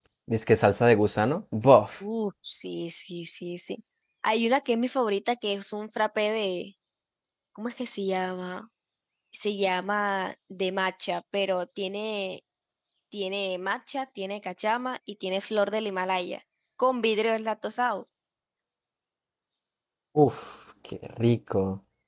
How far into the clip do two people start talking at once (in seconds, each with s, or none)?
none